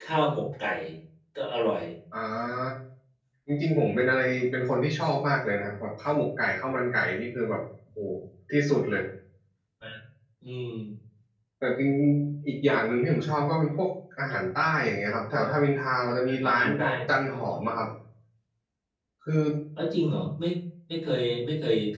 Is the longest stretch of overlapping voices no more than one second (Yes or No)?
Yes